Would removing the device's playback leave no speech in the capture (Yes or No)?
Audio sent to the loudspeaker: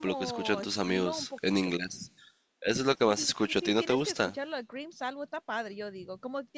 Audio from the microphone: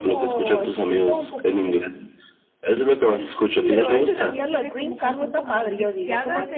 No